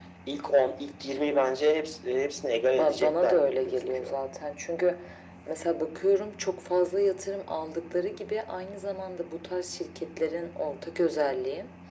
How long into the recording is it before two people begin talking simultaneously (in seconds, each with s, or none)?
2.8 s